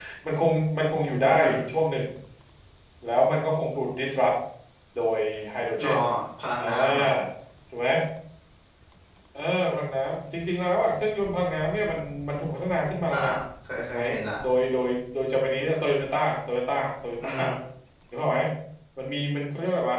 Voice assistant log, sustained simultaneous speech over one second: none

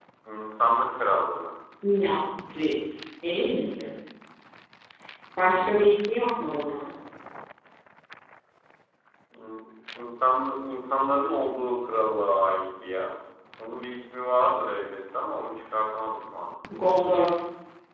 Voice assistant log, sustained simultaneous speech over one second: none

